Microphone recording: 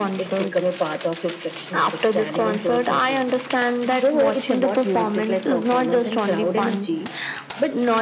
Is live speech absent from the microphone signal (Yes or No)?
Yes